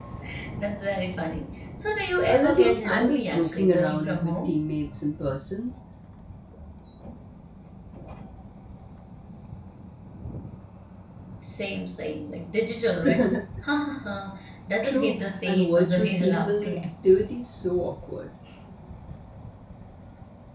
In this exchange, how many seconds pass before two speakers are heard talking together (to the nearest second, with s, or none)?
2 s